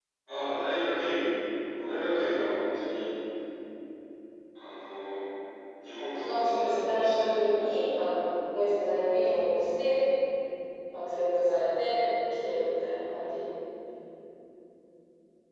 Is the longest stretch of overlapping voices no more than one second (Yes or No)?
No